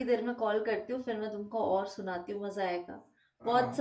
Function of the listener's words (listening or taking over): taking over